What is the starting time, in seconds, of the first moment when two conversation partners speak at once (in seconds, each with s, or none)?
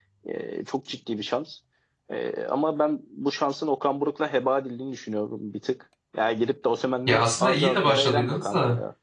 7.1 s